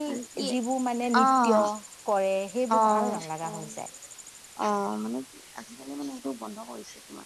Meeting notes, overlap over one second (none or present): none